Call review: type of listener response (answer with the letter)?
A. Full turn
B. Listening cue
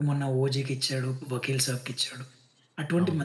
B